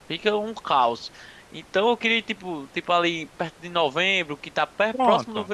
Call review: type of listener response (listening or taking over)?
listening